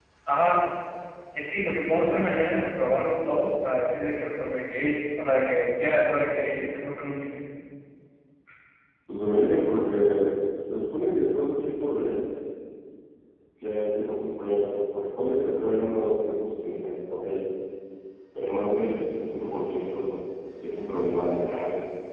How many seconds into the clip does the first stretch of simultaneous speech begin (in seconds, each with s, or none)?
none